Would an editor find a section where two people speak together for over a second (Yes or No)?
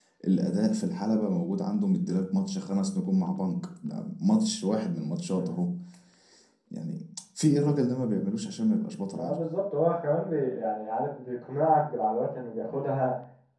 No